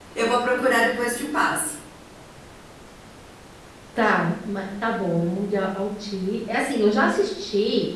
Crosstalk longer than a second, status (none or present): none